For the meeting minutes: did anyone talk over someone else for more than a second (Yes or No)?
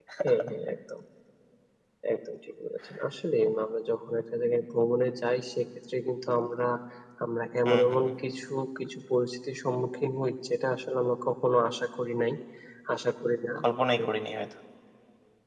No